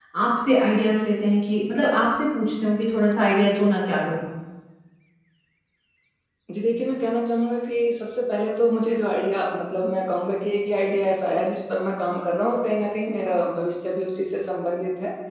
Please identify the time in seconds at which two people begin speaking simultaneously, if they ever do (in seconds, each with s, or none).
none